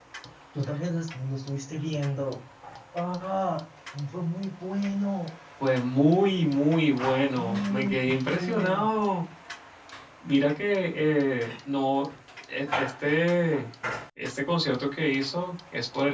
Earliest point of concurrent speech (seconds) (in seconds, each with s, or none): 7.3 s